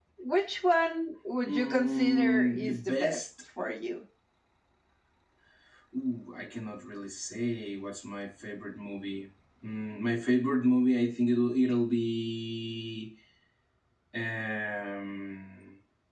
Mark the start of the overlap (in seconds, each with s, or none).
1.4 s